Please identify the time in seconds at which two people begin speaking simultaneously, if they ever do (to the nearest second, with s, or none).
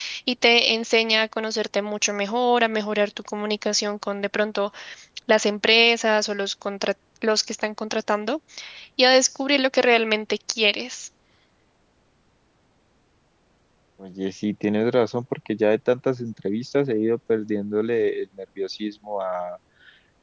none